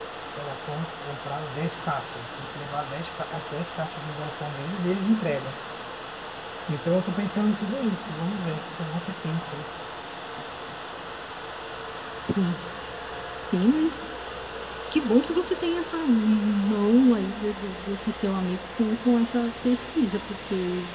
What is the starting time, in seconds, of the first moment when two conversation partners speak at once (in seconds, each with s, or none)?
none